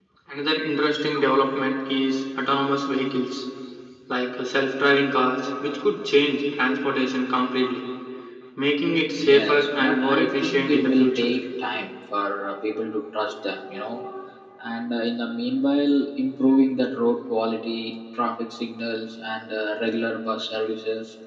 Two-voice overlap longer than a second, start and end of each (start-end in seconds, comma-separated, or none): 9.2-11.3